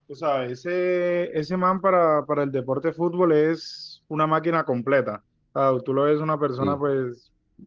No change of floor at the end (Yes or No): Yes